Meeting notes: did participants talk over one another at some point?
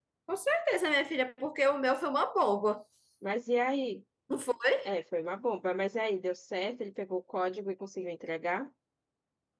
No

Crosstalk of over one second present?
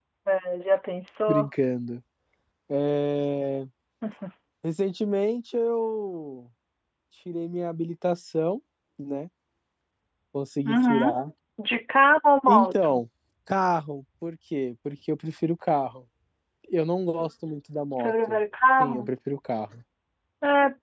No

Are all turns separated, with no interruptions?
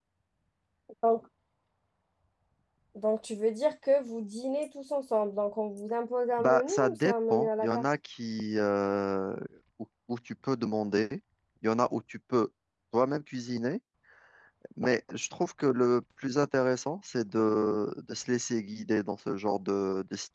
No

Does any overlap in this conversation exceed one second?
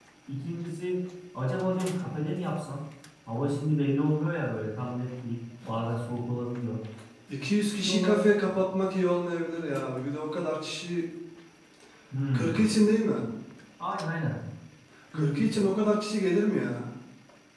No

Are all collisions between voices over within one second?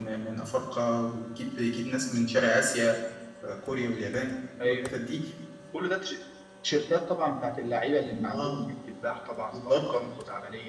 Yes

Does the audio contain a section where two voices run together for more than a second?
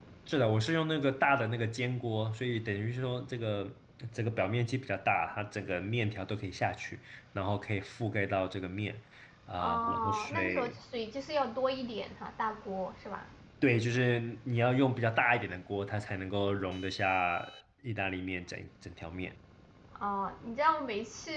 Yes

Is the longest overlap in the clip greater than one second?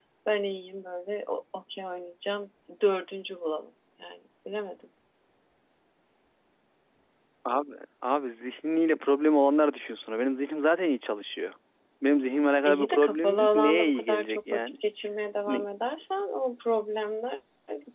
Yes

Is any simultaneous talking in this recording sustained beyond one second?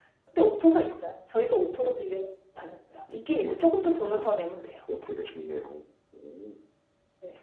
Yes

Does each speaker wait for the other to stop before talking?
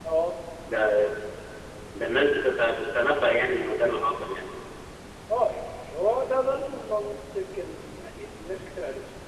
Yes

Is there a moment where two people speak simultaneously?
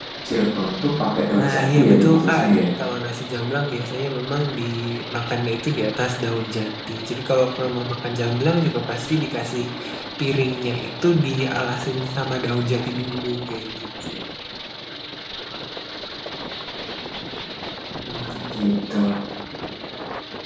Yes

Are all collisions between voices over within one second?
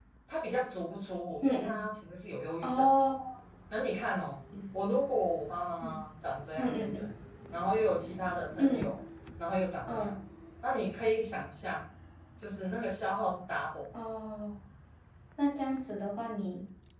Yes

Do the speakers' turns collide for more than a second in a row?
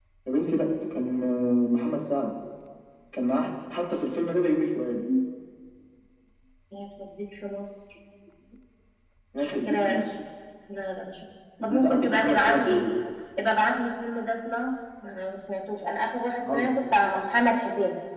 Yes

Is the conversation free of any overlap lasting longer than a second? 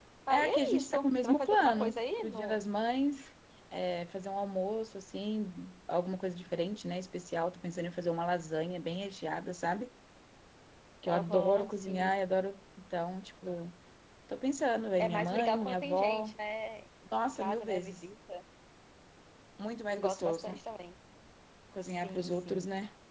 No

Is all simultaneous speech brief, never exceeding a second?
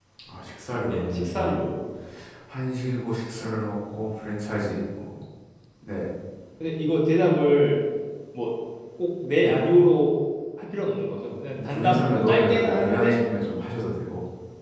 No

